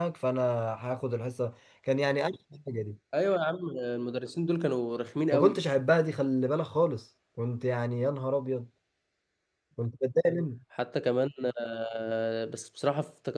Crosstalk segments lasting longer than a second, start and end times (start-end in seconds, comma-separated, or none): none